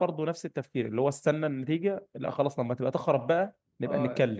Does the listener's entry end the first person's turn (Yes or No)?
Yes